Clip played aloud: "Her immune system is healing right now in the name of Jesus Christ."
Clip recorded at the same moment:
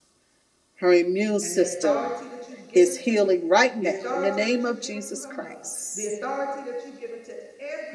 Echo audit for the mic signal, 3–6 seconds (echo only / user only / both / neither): both